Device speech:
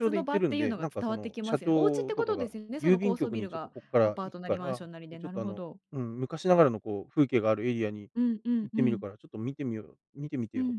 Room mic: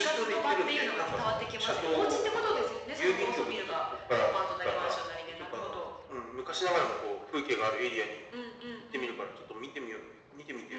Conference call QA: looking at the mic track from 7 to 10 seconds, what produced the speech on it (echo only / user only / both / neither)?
echo only